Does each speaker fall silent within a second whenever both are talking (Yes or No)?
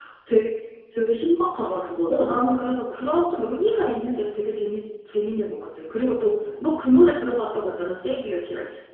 Yes